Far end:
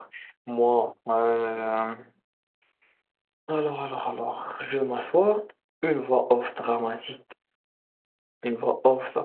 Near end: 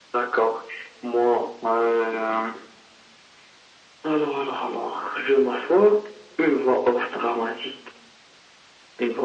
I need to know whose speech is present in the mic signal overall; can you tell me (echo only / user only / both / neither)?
echo only